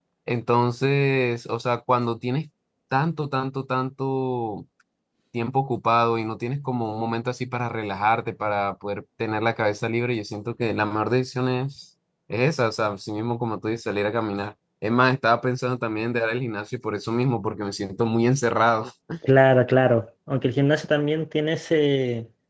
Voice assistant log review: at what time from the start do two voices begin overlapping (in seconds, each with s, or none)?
none